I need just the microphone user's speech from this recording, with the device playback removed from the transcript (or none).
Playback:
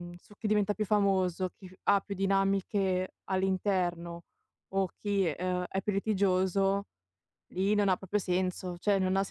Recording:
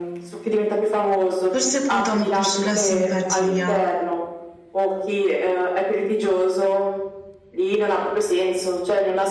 Forse puntano più sulla simpatia.